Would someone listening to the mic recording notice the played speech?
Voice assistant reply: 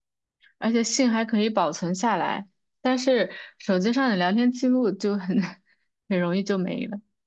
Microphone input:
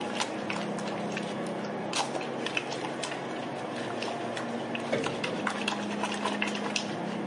No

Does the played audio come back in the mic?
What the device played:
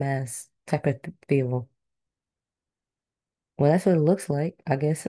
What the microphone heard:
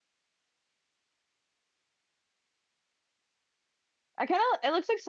No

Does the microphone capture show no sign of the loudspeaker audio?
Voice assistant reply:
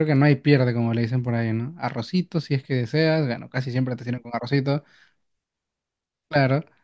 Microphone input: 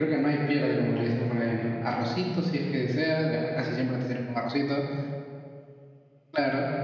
No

